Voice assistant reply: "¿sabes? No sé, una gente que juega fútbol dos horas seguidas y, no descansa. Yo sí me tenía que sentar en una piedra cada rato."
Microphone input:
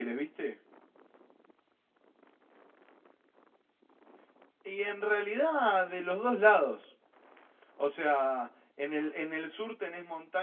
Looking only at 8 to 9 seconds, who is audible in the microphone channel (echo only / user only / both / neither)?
user only